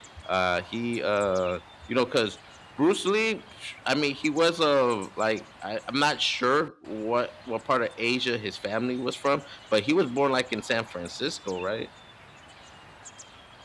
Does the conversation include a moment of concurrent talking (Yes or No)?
No